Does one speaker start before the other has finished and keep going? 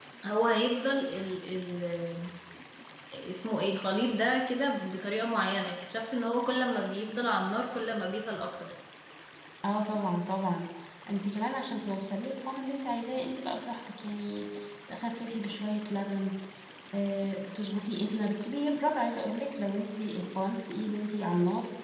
No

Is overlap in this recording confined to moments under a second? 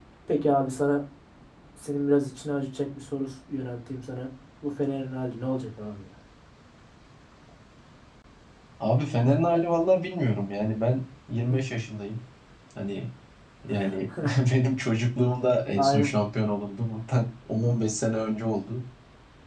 Yes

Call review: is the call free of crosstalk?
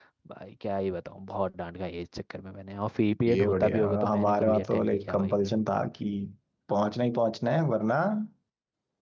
No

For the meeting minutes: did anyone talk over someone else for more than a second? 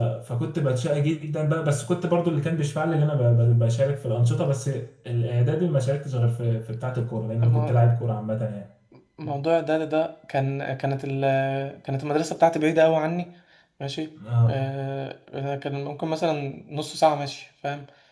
No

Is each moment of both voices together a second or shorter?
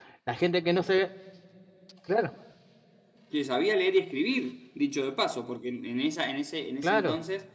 Yes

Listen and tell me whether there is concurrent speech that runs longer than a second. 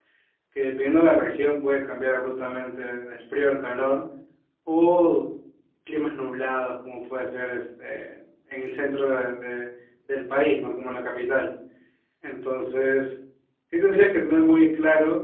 No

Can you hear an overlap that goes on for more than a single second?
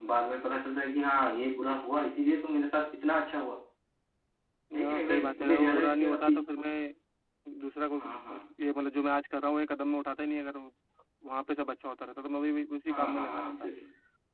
Yes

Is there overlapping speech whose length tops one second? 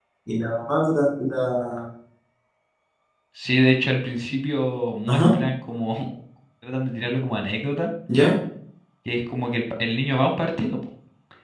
No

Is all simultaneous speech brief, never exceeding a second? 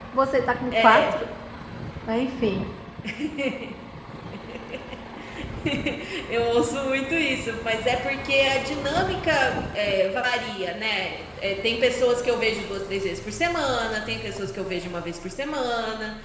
Yes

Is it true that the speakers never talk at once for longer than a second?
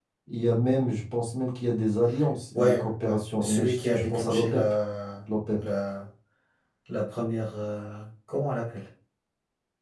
No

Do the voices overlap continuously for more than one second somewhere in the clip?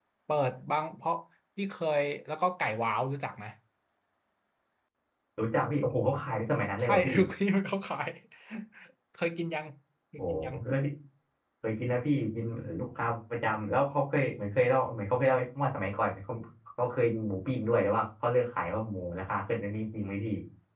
No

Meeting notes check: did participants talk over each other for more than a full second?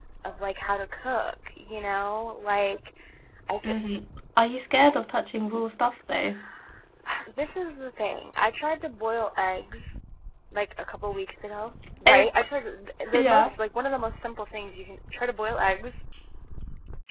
No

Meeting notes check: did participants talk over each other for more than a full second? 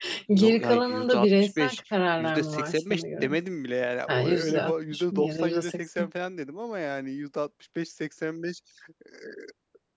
Yes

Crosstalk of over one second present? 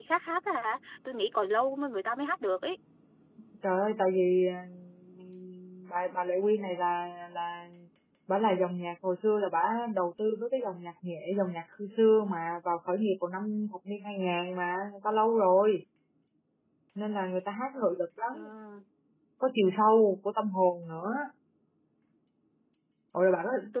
No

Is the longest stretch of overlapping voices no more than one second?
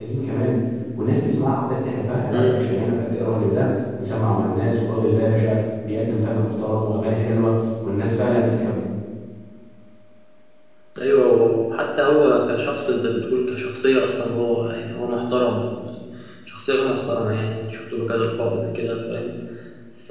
Yes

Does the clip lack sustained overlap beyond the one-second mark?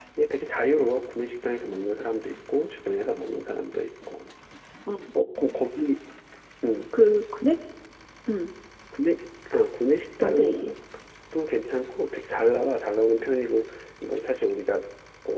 Yes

